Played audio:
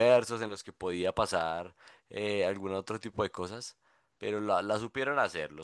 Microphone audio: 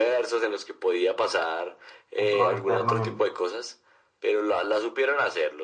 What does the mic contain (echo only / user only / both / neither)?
both